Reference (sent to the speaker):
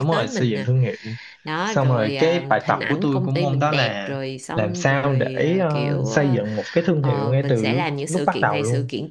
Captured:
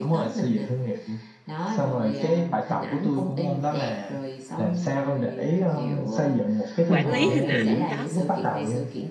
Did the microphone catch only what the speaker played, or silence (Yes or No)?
No